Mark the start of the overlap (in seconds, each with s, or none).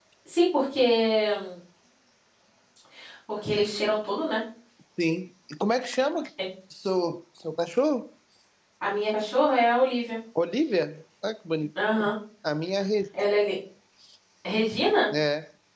none